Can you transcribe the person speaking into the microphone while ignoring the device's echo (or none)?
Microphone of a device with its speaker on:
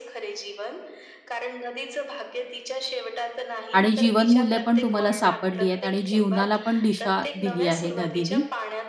आणि जीवनमूल्य पण तुम्हाला सापडली आहेत आणि जीवनाला पण दिशा दिली आहे नदीनी